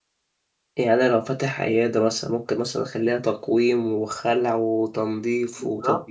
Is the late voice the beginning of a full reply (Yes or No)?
Yes